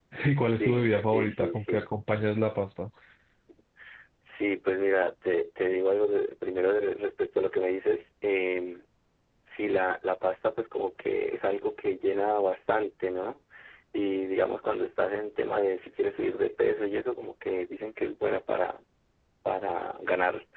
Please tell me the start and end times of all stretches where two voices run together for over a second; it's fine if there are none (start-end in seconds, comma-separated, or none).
0.6-1.9